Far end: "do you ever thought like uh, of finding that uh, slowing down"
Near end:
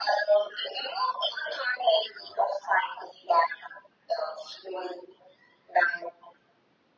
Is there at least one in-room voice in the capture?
No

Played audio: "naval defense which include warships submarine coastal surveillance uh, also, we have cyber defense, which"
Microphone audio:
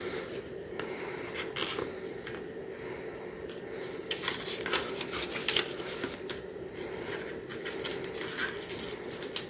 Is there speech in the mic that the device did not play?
No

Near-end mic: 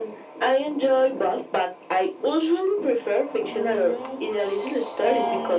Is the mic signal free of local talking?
No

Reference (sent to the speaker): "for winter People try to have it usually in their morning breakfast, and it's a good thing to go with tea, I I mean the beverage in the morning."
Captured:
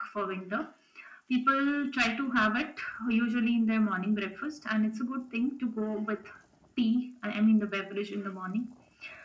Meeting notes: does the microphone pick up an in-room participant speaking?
No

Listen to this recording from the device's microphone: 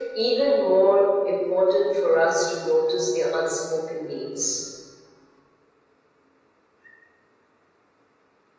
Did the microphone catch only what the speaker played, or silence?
Yes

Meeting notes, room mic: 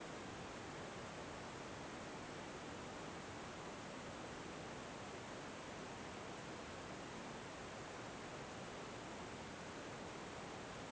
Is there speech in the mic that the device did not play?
No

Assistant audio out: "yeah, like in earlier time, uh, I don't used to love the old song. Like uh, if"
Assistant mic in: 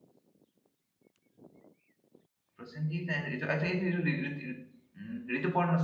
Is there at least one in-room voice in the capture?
Yes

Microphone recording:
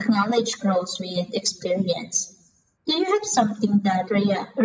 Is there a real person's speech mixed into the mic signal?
No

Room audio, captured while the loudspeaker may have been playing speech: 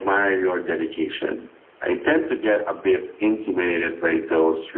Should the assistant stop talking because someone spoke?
No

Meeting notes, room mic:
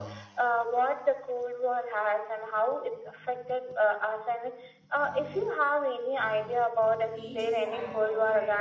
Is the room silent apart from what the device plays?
No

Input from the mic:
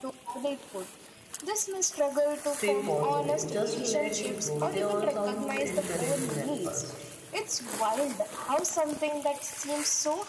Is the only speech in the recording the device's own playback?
No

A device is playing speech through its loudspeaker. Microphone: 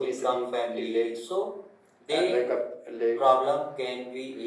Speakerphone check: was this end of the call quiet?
Yes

